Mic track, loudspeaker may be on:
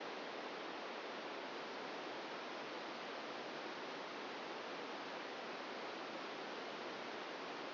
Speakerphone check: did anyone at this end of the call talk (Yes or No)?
No